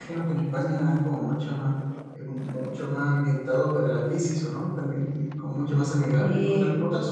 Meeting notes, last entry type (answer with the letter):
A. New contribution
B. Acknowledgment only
B